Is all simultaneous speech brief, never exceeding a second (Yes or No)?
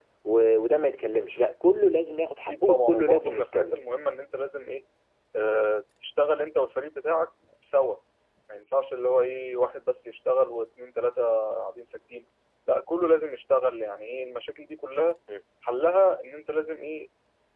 No